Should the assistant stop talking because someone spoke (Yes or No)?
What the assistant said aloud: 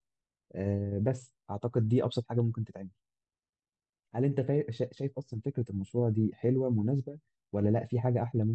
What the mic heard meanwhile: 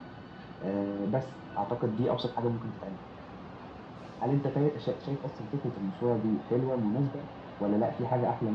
No